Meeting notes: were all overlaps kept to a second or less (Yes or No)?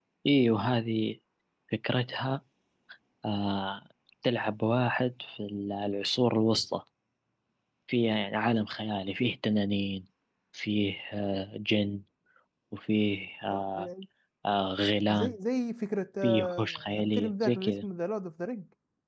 No